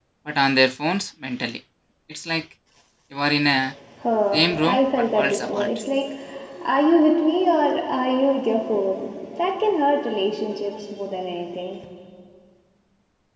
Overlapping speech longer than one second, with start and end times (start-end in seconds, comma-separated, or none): 4.3-5.7